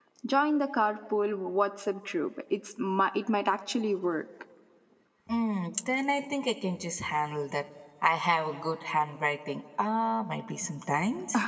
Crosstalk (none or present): none